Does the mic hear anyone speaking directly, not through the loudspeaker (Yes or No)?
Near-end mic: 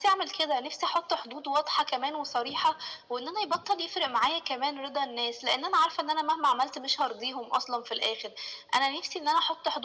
No